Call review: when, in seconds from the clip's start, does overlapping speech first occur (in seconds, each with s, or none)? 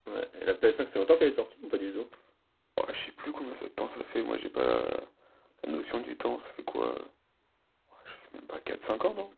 none